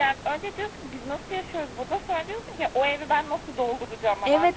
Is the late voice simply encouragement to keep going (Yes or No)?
No